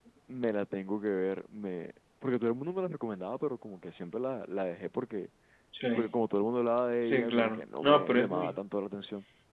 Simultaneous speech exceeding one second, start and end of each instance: 7.0-8.5

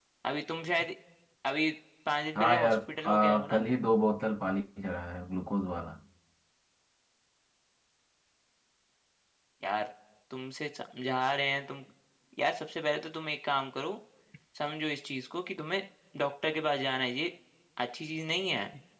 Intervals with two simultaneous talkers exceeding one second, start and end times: 2.4-3.6

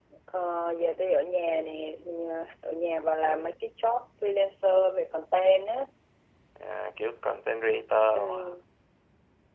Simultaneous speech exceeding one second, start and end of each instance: none

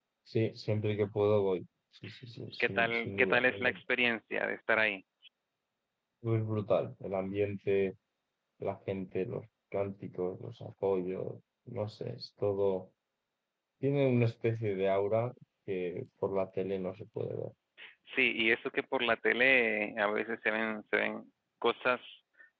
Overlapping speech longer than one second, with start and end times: 2.6-3.8

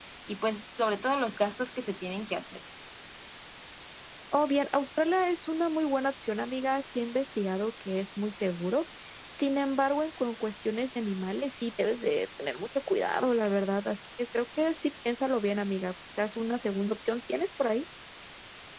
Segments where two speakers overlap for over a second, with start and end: none

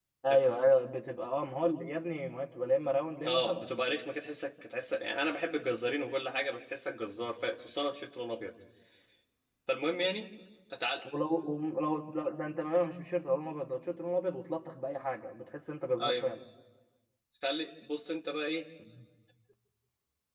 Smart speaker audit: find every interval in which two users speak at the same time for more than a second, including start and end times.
none

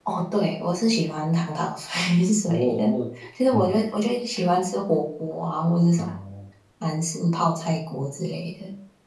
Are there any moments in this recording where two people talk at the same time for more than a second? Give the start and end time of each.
none

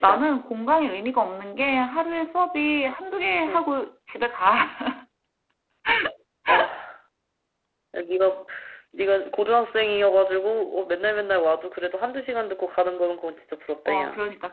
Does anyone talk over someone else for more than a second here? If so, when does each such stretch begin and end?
none

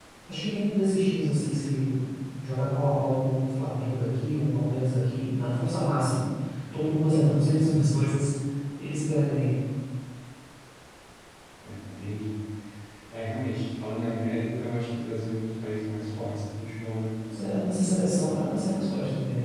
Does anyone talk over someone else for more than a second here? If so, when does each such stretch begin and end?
none

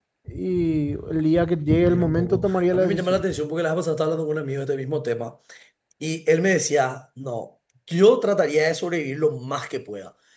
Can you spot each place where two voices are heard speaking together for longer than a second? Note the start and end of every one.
1.8-3.2

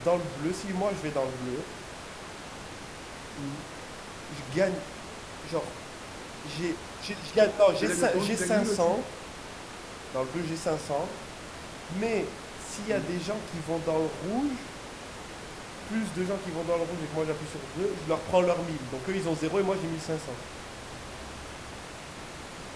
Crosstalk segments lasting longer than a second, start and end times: 7.8-9.0

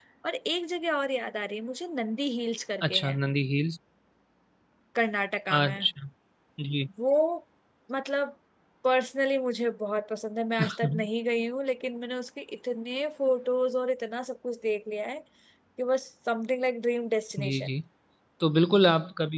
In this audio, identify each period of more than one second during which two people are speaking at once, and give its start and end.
none

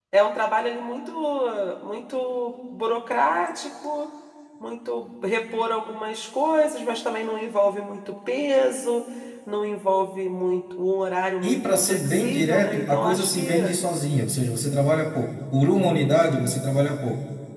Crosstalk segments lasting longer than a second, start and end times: 11.4-13.8

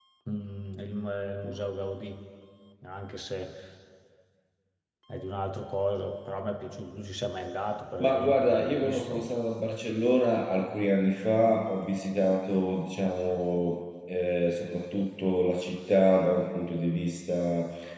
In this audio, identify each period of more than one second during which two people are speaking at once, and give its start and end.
8.0-9.2

